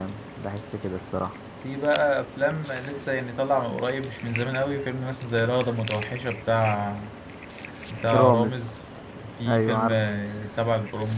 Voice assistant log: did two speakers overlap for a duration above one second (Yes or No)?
No